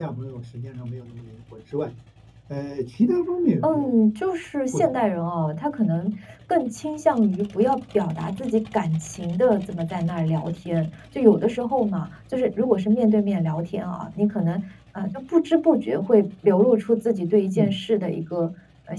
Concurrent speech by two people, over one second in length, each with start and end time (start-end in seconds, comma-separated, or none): none